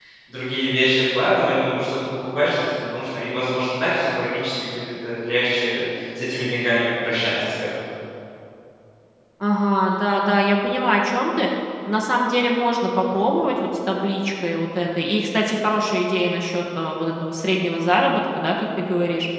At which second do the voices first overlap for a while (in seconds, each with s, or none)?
none